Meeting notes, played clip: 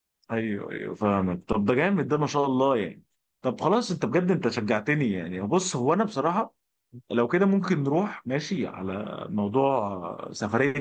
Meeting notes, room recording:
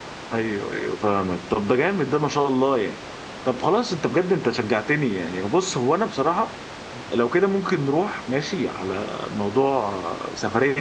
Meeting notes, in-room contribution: none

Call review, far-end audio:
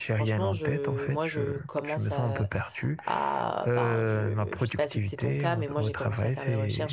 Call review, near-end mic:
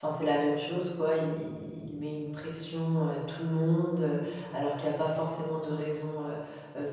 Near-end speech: present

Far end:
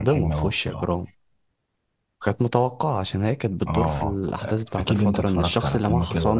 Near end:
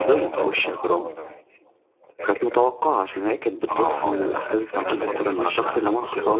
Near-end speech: present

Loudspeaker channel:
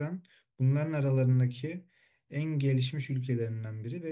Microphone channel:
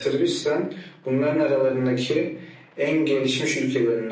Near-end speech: none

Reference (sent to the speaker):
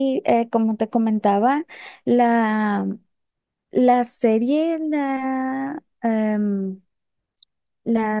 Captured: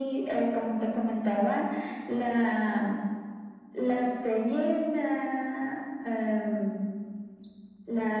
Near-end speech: none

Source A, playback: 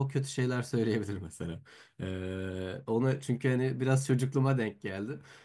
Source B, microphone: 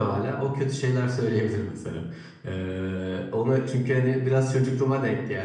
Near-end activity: none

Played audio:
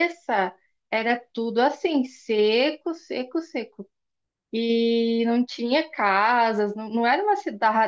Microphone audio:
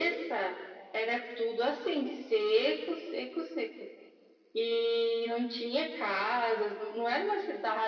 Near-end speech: none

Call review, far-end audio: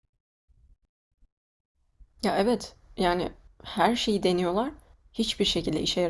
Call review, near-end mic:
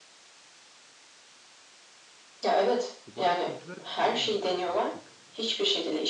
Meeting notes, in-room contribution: present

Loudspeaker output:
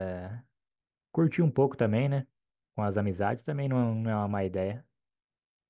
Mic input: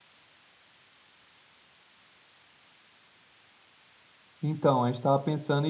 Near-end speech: present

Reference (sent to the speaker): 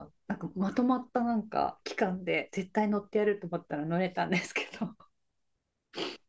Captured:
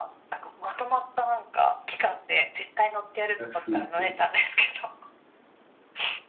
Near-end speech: present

